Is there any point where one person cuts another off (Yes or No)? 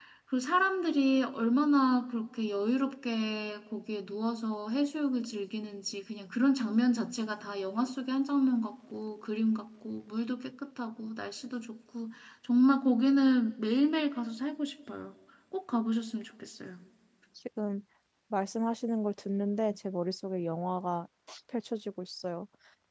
No